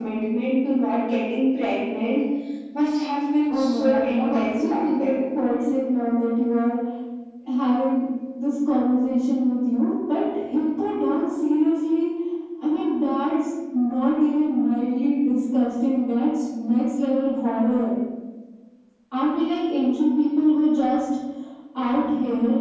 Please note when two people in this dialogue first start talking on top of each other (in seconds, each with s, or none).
3.5 s